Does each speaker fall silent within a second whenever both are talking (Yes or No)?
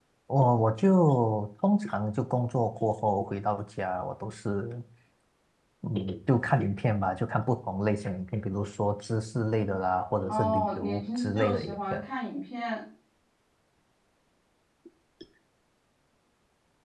No